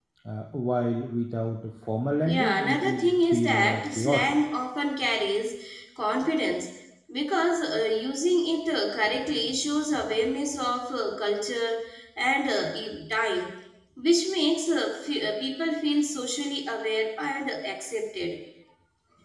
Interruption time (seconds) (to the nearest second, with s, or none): 2 s